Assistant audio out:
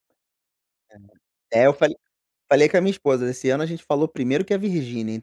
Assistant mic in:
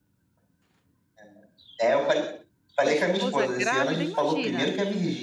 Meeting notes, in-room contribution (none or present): present